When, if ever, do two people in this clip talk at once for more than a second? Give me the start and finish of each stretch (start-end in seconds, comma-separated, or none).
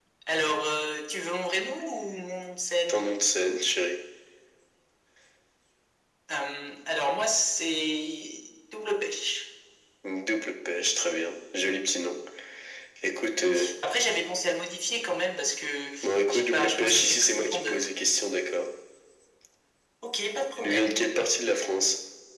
16.3-17.8